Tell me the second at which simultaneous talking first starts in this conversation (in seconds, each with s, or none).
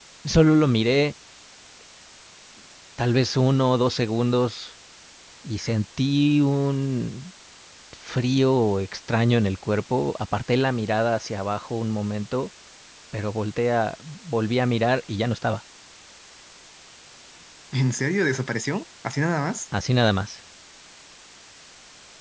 none